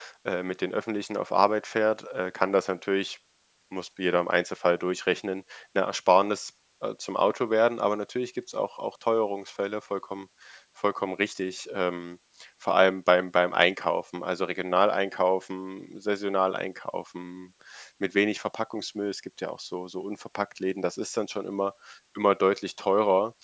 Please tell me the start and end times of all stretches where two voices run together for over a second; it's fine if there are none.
none

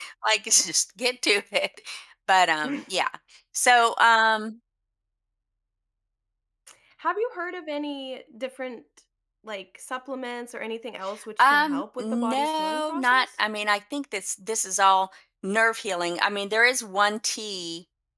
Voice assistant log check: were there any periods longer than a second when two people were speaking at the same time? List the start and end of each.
11.4-13.3

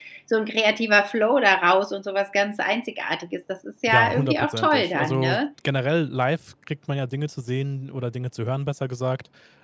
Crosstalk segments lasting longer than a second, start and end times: 3.9-5.4

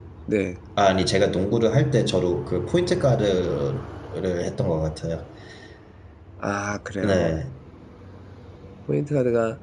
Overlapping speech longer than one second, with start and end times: none

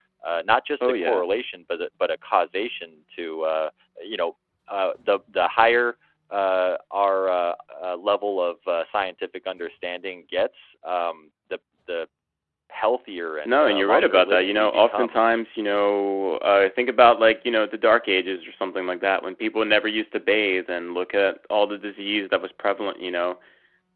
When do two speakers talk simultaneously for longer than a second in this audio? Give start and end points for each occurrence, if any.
13.4-15.2

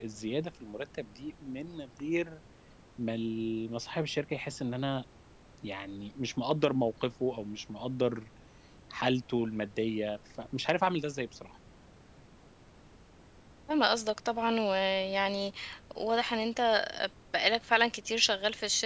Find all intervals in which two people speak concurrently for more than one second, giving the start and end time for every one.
none

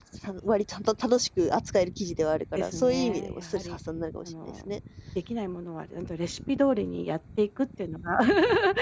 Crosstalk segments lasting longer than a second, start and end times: 2.5-3.8

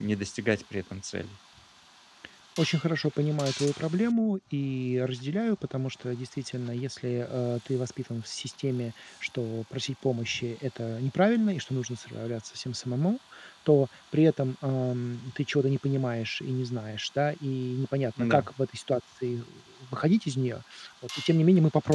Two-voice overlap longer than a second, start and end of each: none

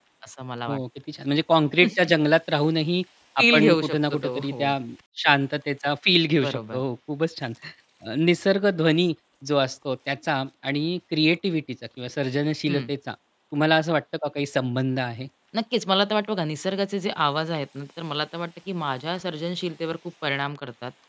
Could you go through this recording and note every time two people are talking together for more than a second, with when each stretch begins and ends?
3.4-4.7

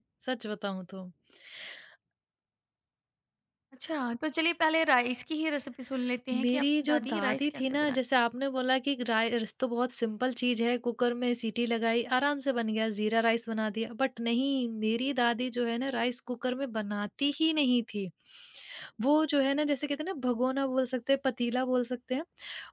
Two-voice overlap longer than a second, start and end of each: 6.3-8.0

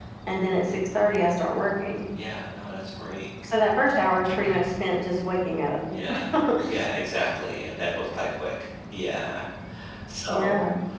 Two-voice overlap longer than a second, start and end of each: none

